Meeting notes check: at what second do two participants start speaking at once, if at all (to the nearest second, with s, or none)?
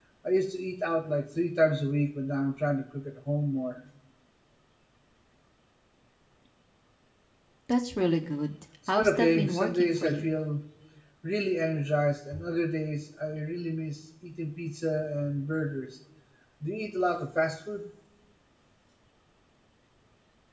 9 s